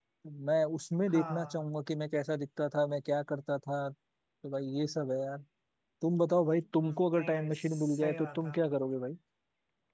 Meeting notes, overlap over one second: present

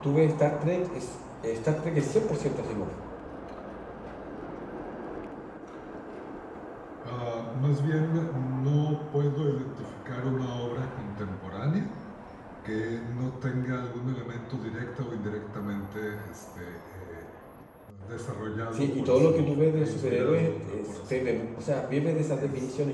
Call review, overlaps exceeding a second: present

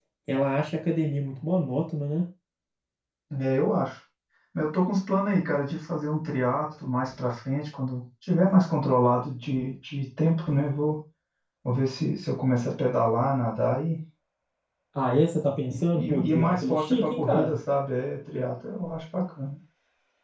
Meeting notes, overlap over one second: present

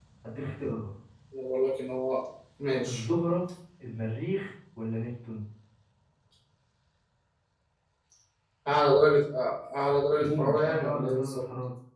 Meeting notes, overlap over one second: present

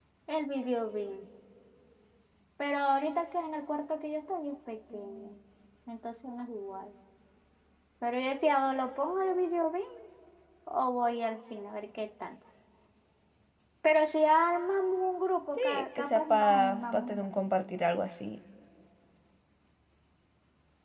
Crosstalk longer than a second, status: present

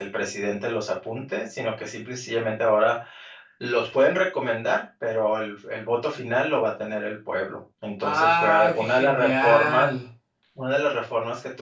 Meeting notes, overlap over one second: present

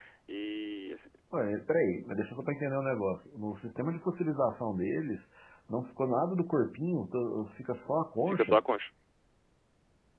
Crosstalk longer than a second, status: none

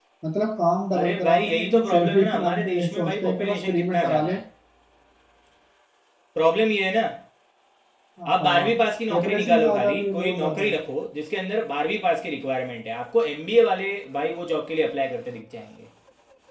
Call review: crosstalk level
present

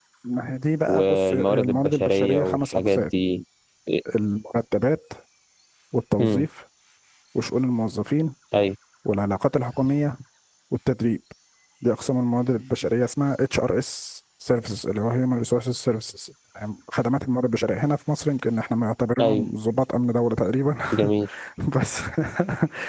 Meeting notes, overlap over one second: present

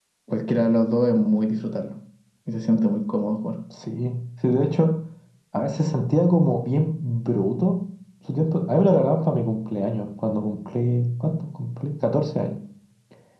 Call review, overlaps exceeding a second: none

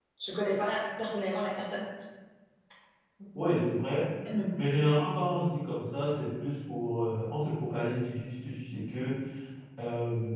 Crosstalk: none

